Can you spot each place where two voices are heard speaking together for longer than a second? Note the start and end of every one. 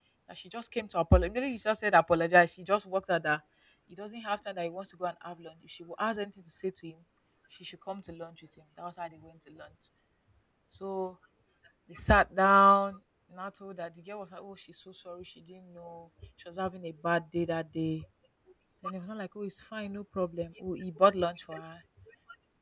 none

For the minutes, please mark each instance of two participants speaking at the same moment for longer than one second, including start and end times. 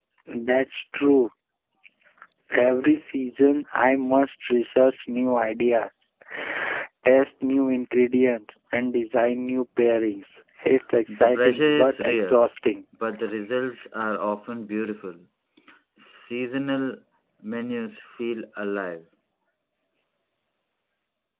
11.1-12.5

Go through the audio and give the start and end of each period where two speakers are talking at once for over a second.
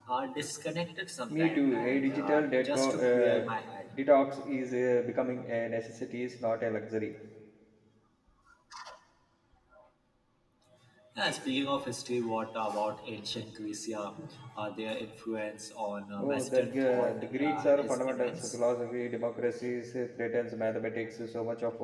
1.3-3.5, 16.2-18.6

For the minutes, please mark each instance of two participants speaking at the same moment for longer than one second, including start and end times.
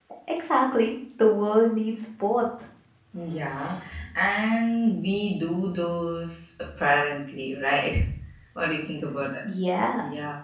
none

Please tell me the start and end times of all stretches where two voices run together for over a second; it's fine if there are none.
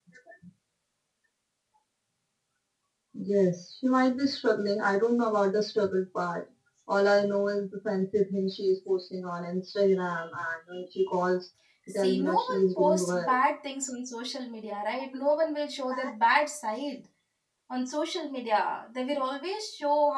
11.9-13.3

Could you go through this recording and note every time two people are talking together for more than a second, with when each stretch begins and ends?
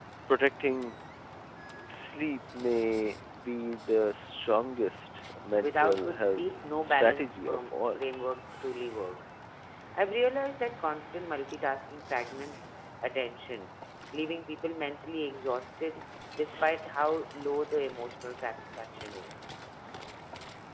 5.6-8.0

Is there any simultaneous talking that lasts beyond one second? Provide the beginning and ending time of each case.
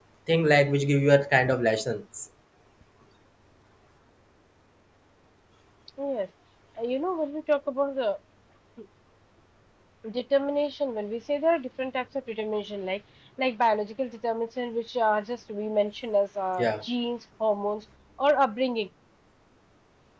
none

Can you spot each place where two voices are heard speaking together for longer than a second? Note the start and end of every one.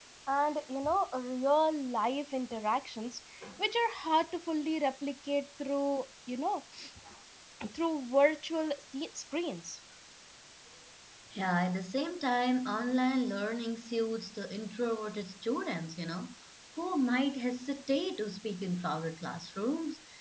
none

